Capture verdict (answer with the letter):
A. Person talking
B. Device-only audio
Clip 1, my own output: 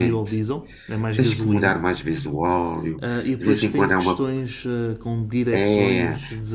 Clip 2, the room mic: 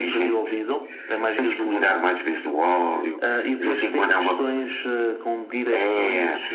B